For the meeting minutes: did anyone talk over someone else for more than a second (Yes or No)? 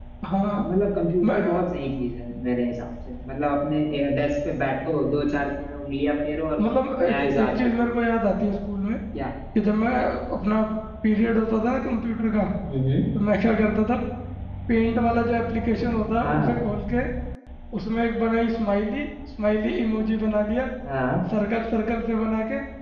Yes